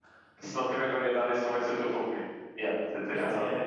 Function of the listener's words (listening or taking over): taking over